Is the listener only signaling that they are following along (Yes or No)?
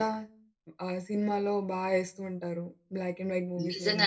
No